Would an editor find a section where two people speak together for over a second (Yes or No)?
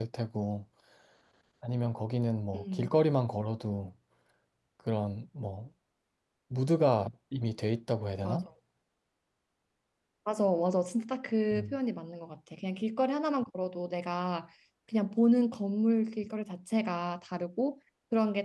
No